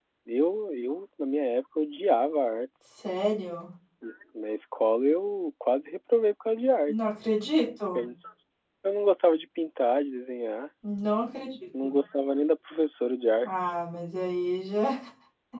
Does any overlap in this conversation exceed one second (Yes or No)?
No